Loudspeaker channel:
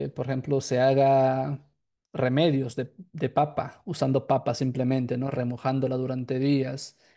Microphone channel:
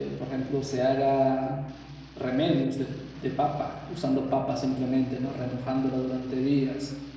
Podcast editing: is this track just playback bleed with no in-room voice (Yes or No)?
Yes